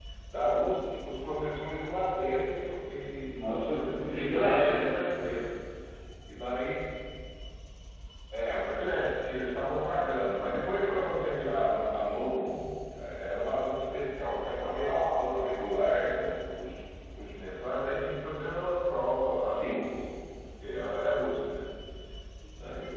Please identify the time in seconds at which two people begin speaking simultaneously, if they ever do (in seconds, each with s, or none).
3.3 s